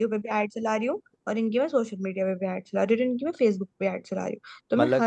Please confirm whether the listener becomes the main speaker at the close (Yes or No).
No